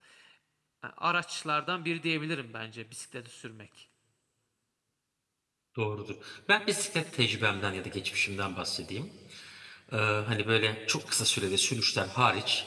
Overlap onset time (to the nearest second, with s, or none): none